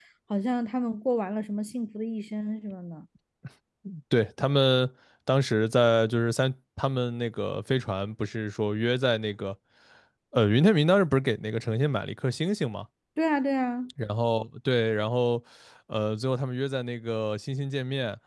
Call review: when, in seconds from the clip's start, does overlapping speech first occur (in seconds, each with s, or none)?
none